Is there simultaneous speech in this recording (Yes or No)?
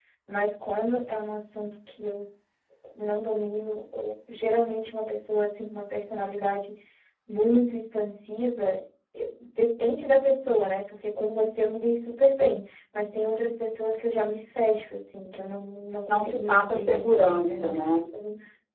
Yes